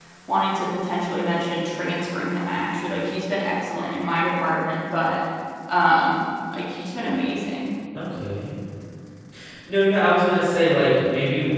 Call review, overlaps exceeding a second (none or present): none